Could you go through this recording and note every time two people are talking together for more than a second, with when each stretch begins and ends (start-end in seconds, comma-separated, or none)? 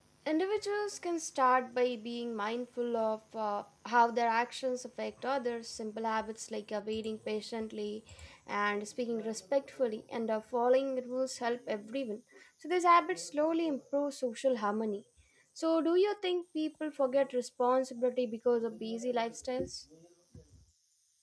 none